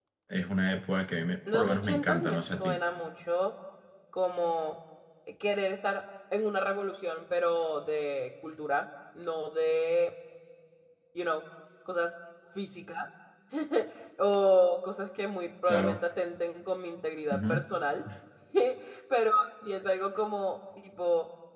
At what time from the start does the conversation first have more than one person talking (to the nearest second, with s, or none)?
2 s